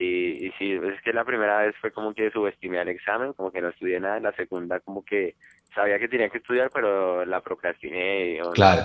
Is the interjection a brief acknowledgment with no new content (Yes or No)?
Yes